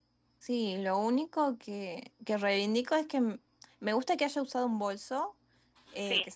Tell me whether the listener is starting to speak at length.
No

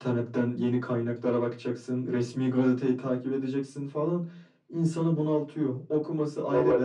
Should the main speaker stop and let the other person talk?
No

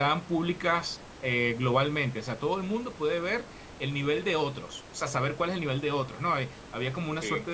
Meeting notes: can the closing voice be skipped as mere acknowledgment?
Yes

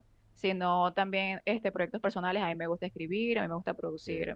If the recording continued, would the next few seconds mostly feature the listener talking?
No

